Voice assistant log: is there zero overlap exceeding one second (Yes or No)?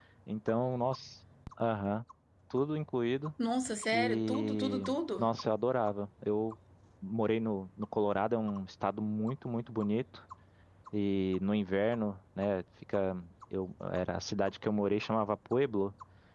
No